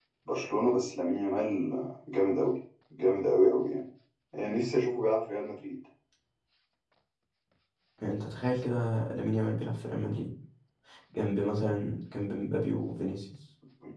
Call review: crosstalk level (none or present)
none